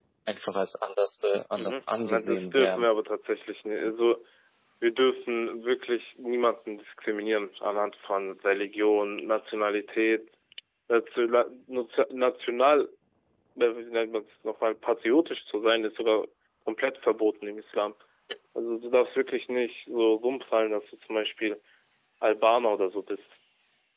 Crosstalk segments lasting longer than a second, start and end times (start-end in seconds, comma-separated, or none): 1.5-2.9